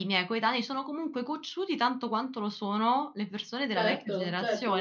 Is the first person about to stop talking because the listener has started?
Yes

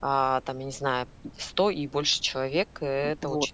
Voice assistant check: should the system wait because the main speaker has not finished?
No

